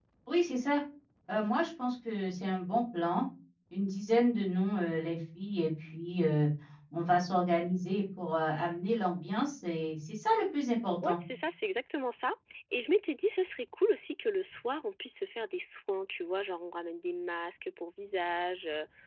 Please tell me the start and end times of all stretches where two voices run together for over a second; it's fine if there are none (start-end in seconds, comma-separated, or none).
none